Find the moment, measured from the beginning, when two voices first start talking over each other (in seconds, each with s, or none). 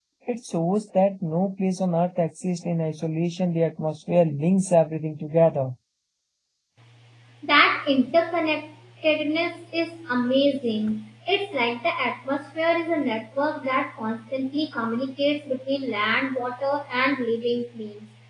none